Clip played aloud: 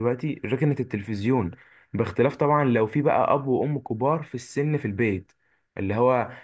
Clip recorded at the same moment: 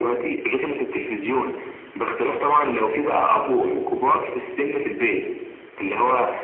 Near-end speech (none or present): none